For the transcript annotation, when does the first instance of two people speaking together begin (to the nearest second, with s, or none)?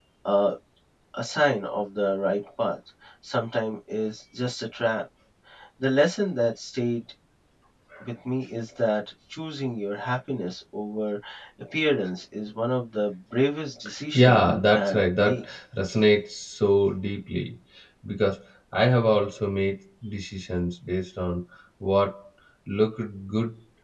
14 s